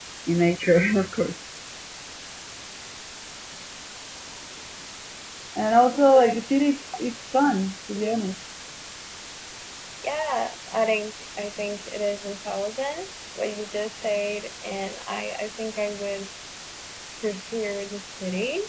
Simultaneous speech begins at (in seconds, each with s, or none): none